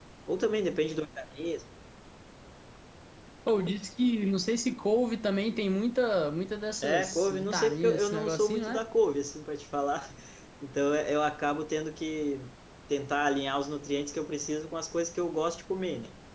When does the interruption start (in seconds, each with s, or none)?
6.8 s